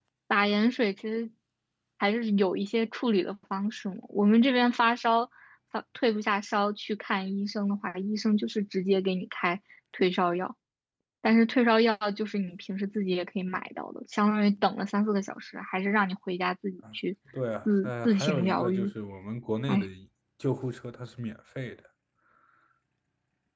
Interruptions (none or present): present